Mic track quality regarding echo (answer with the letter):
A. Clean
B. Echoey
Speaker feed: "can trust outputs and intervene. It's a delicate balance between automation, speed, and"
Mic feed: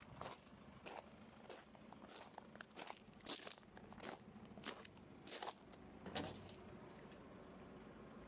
A